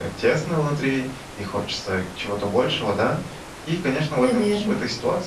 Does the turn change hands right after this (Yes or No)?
No